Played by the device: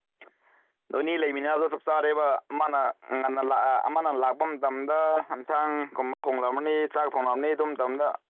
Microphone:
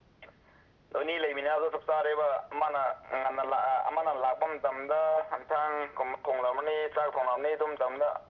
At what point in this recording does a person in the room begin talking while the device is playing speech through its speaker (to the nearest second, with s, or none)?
none